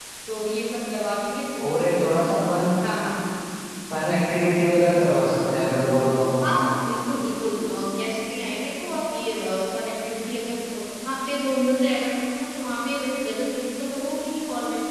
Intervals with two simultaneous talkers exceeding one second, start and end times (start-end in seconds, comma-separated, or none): none